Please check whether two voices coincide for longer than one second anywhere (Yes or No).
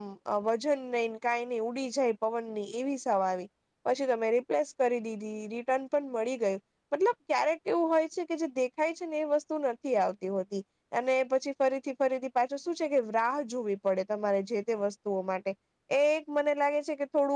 No